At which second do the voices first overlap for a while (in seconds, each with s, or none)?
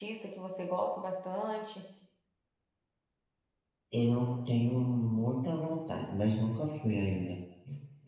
none